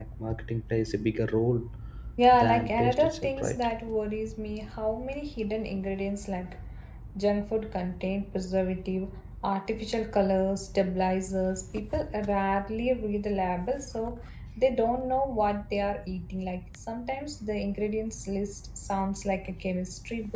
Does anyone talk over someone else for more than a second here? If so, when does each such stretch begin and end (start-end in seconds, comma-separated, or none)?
2.3-3.7